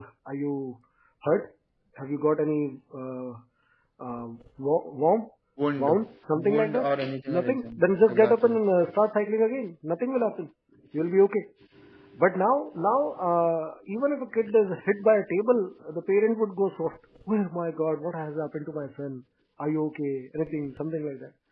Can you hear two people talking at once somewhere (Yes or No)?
Yes